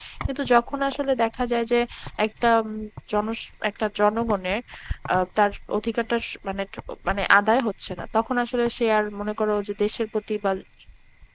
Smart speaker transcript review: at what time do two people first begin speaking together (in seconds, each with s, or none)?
none